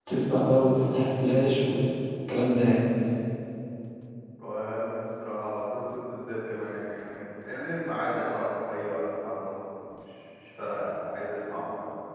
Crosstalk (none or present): none